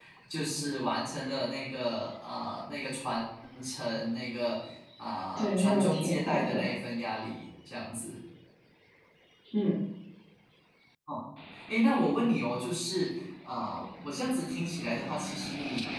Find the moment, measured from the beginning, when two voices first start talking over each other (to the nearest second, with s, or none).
5 s